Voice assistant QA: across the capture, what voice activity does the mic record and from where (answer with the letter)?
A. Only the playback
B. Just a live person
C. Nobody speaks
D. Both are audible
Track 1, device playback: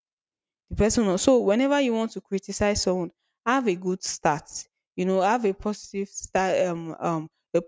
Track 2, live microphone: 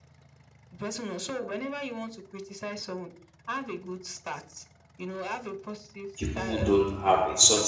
D